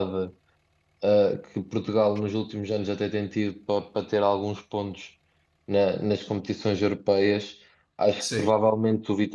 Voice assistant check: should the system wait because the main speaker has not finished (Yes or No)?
Yes